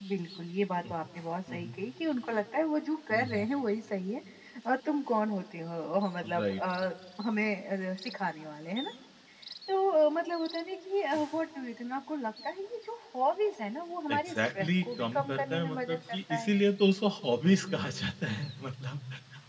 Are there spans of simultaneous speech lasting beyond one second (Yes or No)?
Yes